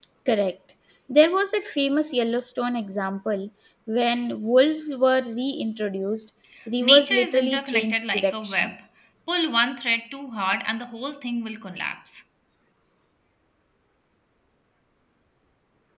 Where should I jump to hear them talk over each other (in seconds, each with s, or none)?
6.8 s